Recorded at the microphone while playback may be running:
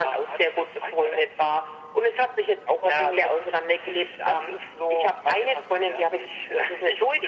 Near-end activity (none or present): none